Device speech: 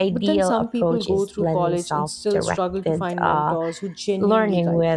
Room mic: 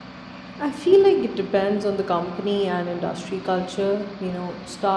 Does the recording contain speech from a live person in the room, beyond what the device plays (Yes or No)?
Yes